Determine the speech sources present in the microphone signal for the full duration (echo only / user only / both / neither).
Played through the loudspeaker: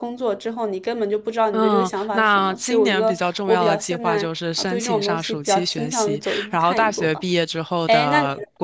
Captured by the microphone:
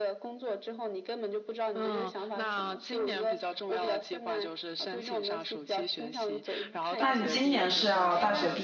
both